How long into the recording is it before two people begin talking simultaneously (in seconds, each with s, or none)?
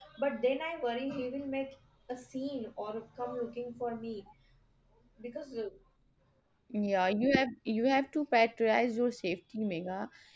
none